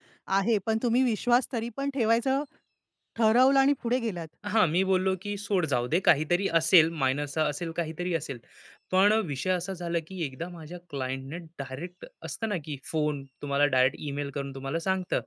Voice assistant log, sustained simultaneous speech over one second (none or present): none